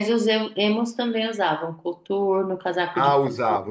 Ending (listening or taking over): taking over